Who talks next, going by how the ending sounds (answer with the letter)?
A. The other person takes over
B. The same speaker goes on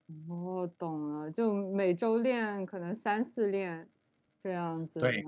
A